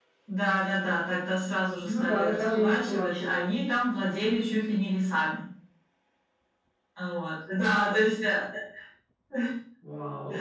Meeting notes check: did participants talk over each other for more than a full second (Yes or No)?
Yes